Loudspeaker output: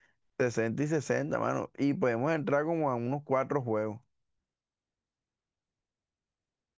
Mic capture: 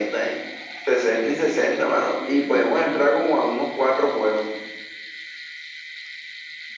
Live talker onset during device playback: none

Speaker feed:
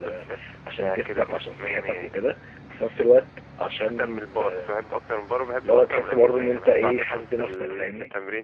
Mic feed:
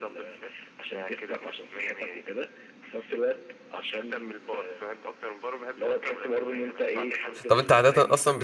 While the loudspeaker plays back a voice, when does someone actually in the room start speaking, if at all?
7.5 s

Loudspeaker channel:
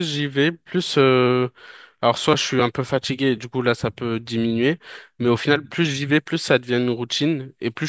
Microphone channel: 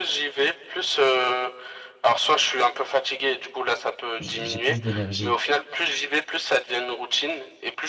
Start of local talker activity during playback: 4.2 s

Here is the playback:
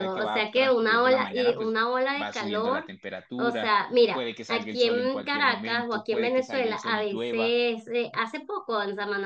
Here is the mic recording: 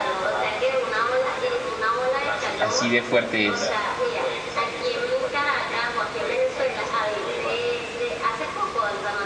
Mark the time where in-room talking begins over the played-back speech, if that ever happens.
2.6 s

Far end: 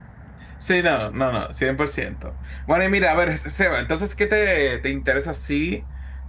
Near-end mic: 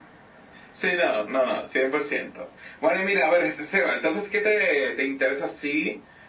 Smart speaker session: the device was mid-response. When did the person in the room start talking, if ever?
none

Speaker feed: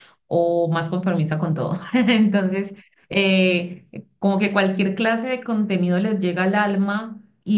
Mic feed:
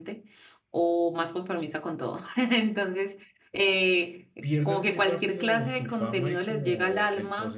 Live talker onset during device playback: 4.4 s

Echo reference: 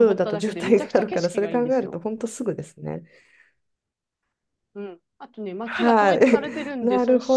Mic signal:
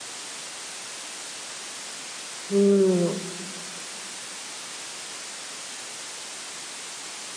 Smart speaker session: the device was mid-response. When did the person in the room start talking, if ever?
2.5 s

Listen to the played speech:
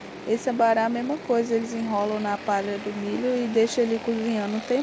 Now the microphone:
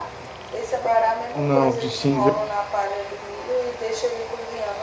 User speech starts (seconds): 1.3 s

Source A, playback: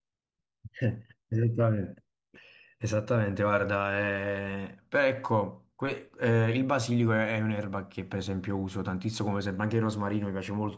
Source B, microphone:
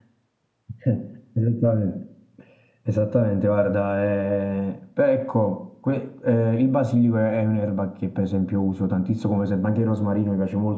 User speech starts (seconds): none

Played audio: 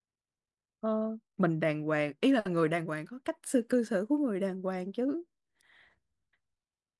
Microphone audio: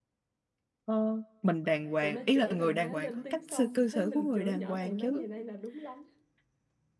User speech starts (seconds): 2.0 s

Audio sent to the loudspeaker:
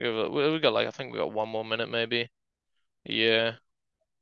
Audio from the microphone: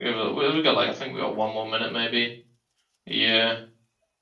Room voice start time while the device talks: none

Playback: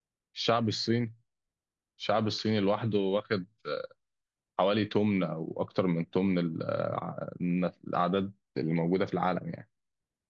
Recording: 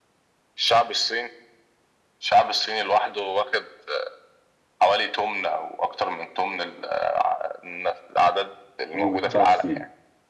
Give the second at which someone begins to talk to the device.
8.9 s

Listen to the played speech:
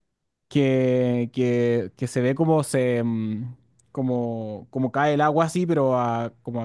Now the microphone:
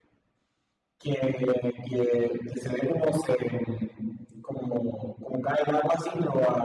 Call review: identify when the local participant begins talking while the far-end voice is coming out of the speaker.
none

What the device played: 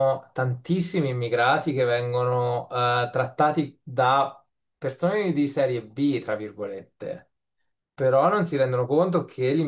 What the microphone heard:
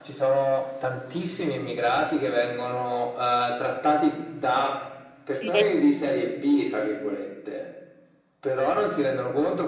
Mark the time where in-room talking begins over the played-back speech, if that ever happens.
5.4 s

